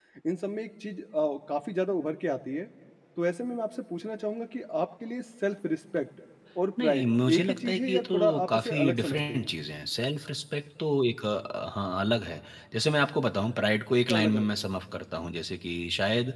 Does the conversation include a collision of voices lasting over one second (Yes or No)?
Yes